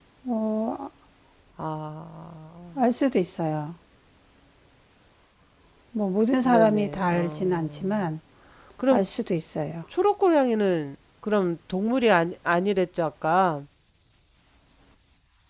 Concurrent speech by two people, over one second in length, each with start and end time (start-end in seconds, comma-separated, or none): 6.4-8.0